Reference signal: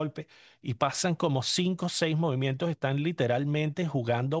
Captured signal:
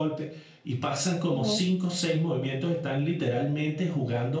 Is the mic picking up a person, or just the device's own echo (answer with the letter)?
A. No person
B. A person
B